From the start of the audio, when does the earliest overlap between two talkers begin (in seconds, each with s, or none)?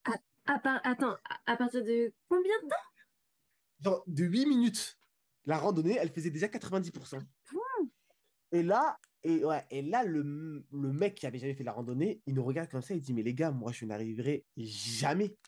none